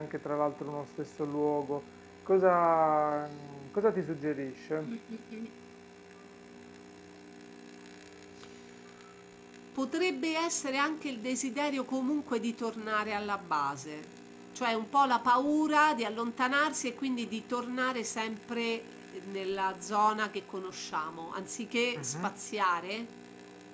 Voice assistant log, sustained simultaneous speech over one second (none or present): none